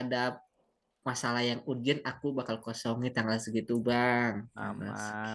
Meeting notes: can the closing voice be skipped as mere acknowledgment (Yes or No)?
No